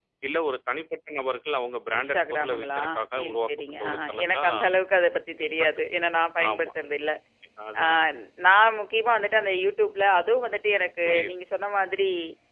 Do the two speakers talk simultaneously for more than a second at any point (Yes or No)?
Yes